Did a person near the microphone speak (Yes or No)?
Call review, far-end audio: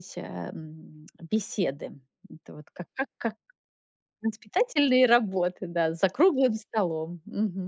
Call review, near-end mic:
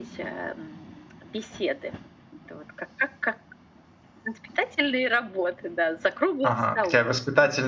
Yes